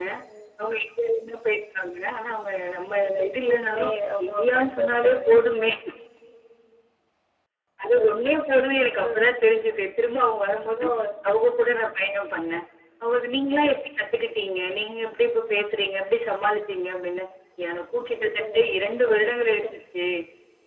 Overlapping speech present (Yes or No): Yes